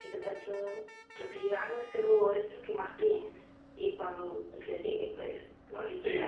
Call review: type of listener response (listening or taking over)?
taking over